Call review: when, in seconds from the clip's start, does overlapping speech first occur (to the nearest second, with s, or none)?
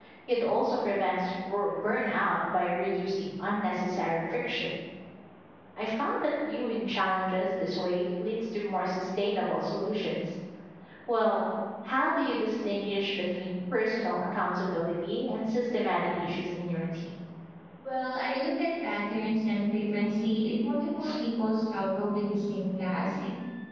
none